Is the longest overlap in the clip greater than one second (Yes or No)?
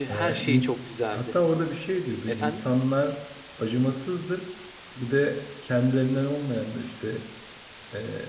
No